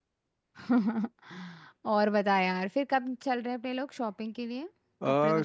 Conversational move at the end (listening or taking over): taking over